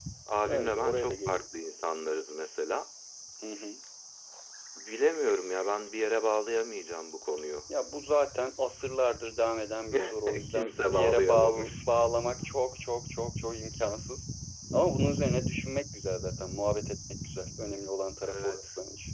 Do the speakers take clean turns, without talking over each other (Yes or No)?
No